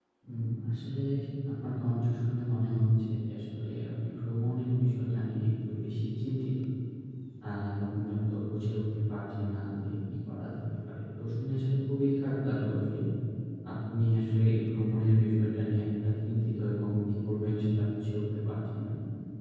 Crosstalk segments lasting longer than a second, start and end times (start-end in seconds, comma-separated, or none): none